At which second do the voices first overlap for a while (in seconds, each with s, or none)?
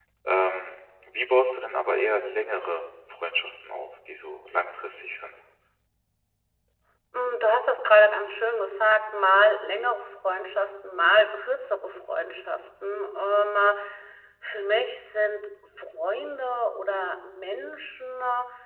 none